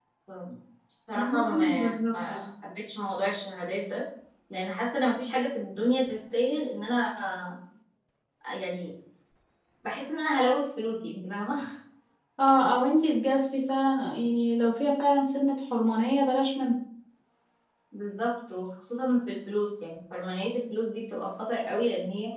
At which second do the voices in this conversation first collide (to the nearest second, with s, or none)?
1 s